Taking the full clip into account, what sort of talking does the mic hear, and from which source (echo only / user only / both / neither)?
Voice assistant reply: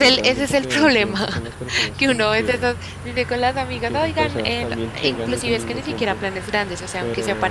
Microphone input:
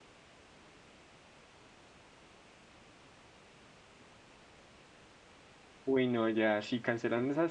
user only